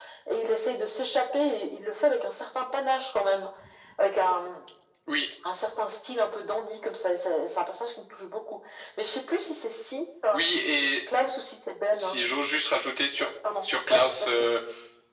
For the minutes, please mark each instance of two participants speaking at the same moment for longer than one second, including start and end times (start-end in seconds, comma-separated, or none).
13.2-14.4